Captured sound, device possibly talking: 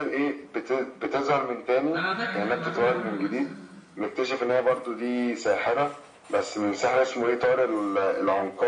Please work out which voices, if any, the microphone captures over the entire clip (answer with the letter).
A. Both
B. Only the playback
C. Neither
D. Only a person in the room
A